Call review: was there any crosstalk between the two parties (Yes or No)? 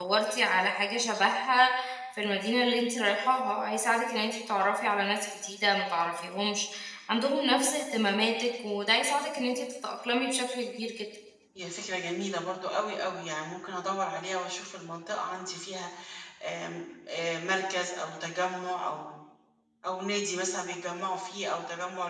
No